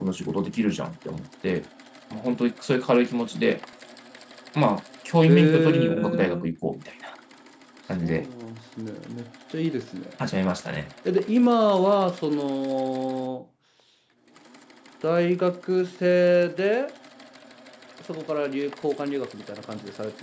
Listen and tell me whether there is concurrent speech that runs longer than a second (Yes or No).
Yes